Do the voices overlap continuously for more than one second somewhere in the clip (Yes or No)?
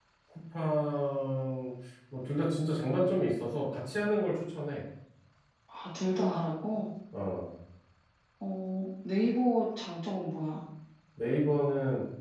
No